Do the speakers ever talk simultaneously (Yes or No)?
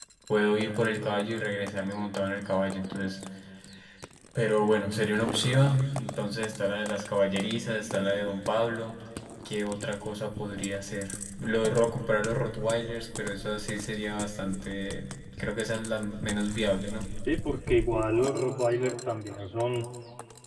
No